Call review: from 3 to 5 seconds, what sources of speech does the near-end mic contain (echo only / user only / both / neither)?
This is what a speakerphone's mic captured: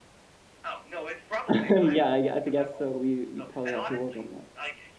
both